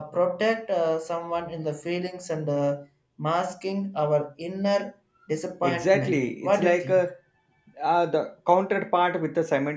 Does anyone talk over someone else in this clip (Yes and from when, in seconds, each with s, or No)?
Yes, from 5.6 s